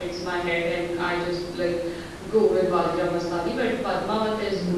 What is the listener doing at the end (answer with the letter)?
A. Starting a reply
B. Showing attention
B